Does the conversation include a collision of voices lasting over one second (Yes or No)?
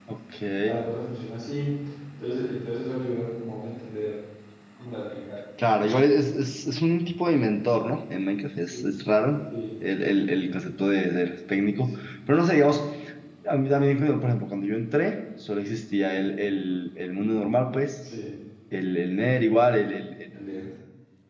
No